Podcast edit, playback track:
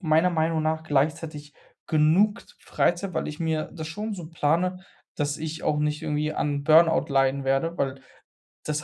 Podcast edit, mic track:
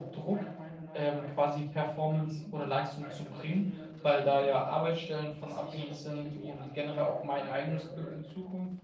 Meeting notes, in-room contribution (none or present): present